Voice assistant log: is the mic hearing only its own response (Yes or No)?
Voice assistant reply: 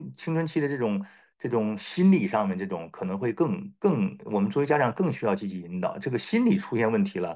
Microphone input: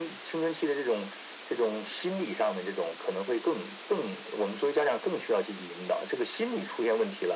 Yes